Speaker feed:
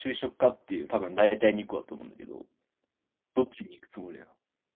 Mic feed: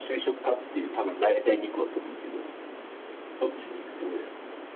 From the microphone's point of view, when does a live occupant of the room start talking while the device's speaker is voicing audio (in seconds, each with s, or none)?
none